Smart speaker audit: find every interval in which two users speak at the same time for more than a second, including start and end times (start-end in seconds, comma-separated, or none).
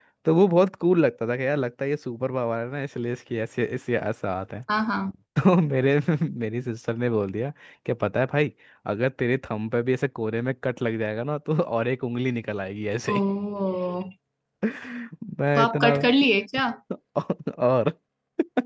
none